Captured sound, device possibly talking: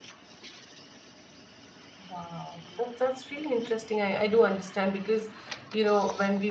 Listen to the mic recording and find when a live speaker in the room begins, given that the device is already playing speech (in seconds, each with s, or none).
2.1 s